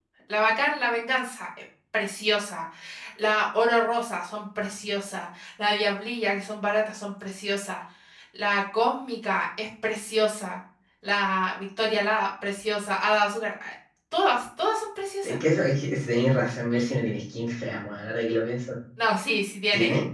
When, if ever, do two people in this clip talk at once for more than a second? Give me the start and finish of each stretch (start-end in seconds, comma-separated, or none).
none